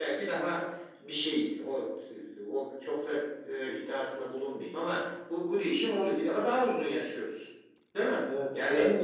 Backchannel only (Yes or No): No